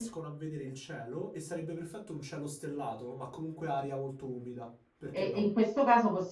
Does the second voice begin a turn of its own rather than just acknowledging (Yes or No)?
Yes